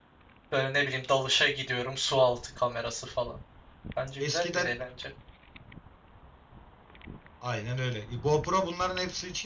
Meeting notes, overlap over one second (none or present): none